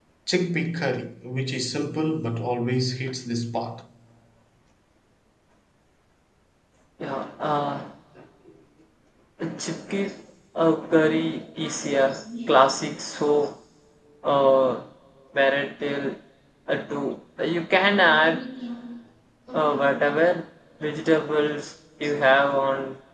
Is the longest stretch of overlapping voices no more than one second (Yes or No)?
No